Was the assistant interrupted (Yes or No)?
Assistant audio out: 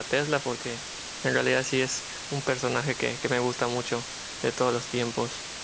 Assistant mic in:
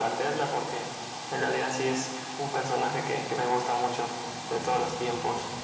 No